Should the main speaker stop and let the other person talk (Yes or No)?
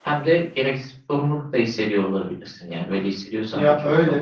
Yes